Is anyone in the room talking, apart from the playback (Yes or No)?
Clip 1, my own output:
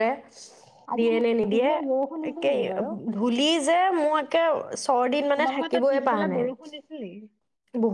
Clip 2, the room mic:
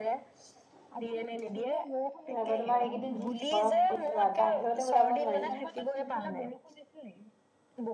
Yes